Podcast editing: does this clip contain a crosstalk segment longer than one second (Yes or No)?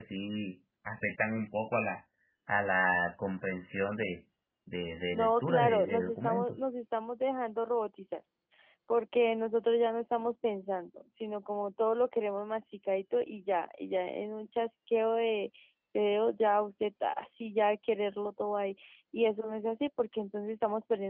Yes